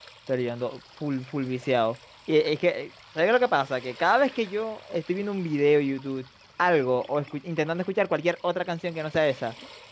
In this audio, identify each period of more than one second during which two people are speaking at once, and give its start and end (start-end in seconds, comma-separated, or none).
none